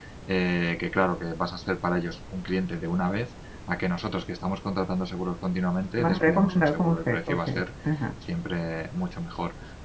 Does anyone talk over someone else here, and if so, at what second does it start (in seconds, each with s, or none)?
6.0 s